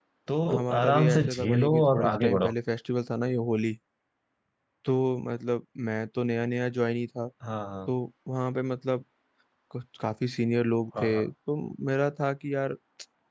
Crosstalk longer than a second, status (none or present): present